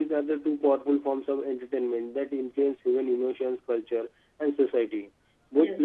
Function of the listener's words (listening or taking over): listening